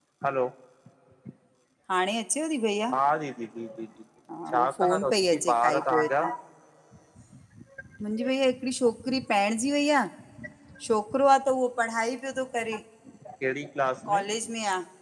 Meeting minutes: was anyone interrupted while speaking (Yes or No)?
Yes